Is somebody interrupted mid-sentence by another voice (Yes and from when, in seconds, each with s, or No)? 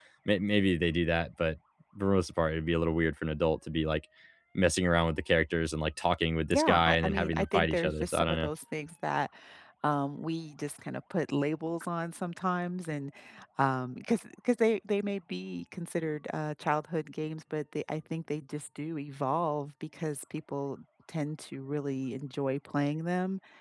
Yes, from 6.5 s